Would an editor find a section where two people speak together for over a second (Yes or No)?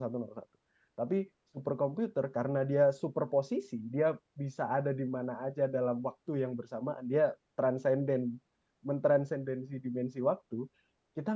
No